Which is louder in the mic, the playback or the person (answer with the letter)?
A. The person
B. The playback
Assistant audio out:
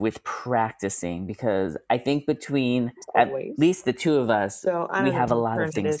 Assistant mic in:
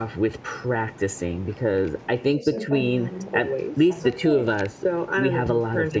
B